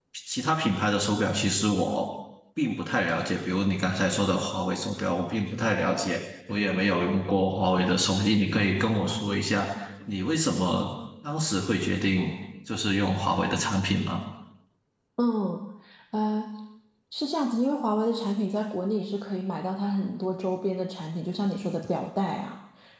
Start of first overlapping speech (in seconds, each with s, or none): none